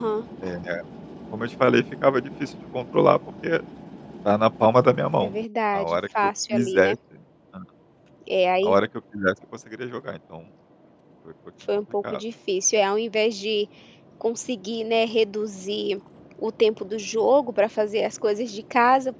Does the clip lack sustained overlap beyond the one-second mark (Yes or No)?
No